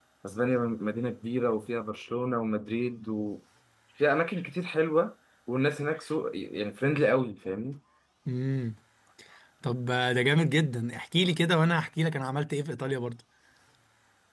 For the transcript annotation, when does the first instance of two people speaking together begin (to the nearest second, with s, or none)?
none